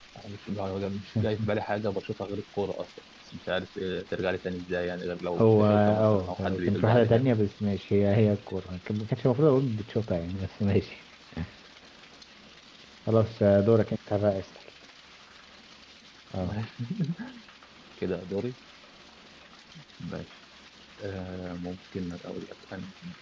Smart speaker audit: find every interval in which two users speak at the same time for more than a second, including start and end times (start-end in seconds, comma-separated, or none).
5.4-7.2